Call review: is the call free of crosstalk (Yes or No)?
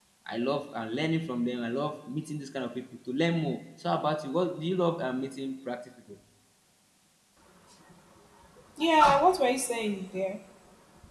Yes